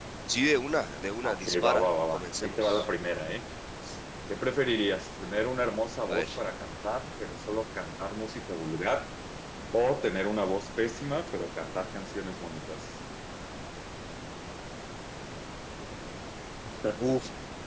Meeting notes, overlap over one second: present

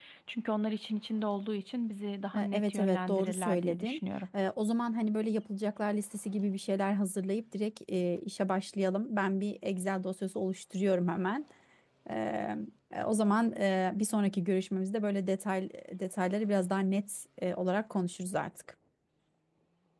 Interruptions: present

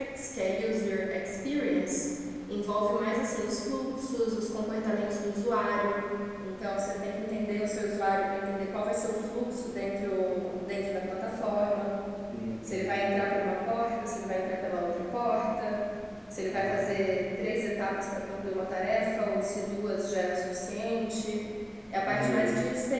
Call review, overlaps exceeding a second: none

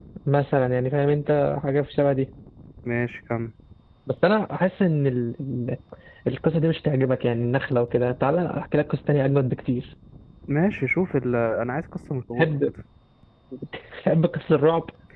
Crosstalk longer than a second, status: none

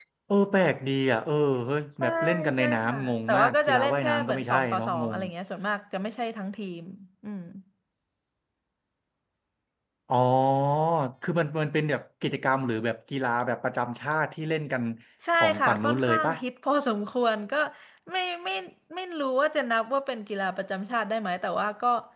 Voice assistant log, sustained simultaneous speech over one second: present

